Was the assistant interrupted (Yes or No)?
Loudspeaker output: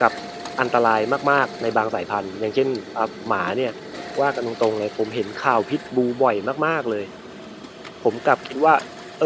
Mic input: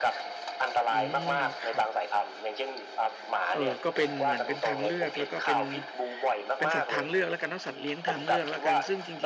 Yes